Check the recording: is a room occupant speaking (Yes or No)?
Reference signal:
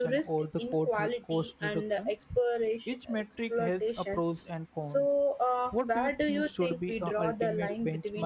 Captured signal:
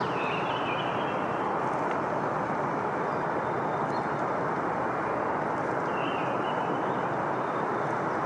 No